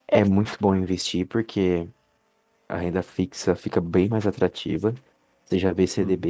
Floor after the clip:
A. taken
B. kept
B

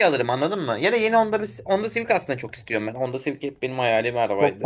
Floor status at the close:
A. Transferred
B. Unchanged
A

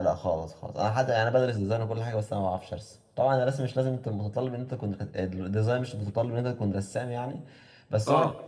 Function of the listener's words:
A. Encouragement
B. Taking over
A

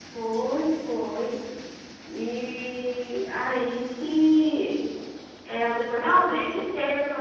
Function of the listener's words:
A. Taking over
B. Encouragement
A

